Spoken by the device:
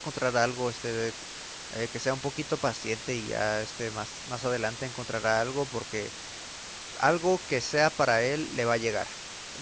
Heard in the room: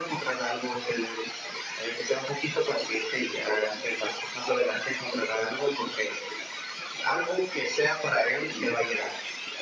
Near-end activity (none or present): none